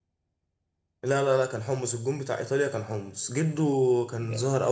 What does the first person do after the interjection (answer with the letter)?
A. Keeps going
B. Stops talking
A